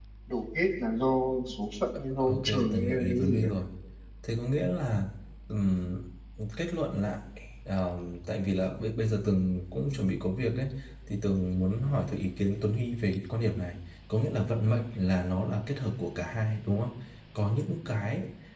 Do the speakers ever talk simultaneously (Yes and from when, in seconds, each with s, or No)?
Yes, from 2.2 s